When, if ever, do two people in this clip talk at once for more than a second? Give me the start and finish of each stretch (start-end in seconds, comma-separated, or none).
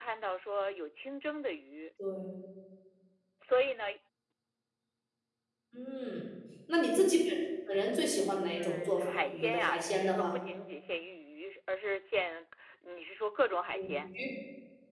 8.6-10.3